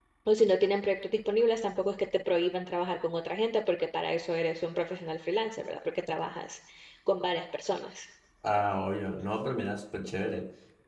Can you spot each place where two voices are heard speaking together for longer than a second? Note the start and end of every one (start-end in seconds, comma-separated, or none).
none